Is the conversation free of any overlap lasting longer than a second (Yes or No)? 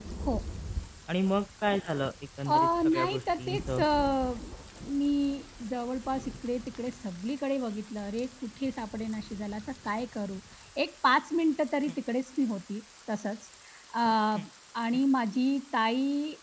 No